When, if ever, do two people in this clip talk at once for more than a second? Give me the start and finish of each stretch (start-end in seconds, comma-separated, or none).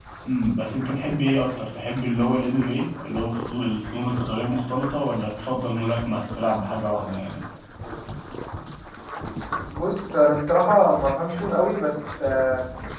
none